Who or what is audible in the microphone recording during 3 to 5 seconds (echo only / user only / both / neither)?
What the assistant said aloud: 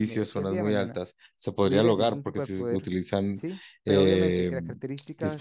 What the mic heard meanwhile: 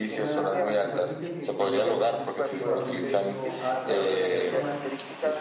both